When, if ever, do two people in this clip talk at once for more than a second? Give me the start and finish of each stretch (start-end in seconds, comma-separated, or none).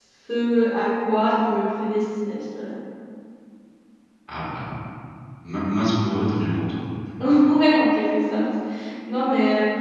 none